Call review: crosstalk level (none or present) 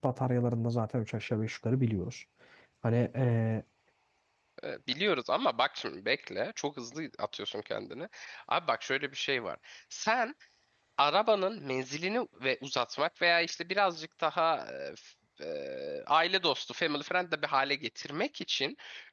none